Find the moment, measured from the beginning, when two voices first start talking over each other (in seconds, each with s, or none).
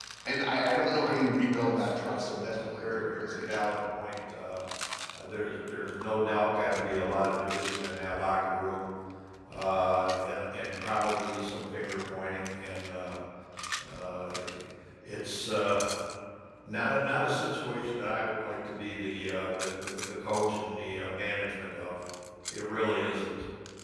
1.5 s